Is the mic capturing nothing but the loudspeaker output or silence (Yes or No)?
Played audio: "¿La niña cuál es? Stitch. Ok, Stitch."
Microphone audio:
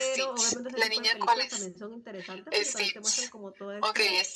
No